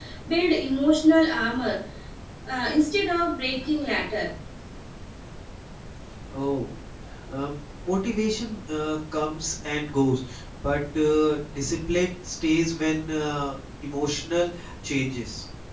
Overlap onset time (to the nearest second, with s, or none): none